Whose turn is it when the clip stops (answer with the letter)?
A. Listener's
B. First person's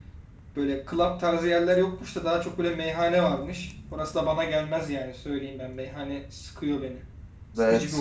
A